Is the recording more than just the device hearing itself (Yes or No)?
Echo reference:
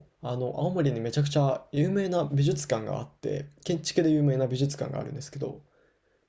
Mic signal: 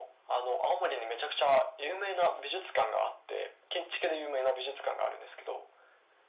No